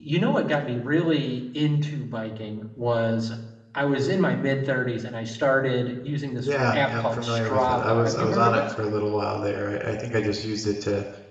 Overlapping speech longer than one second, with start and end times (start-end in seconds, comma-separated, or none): 6.4-8.7